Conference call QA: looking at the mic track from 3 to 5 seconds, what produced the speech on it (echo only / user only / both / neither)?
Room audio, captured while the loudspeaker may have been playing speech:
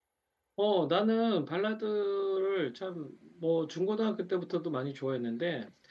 user only